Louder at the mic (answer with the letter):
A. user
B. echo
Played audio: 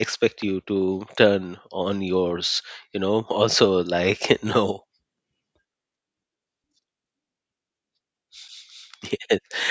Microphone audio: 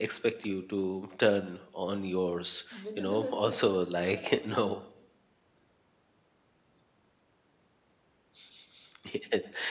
B